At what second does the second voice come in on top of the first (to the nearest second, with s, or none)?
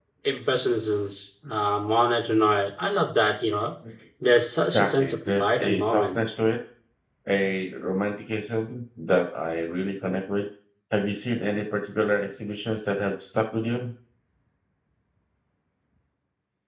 5 s